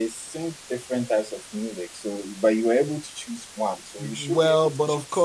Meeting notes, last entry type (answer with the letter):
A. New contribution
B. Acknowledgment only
A